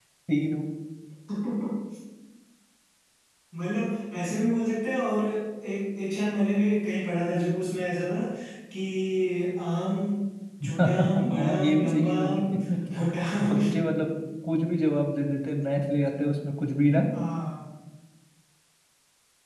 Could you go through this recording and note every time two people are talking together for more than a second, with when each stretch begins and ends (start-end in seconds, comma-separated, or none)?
10.8-12.4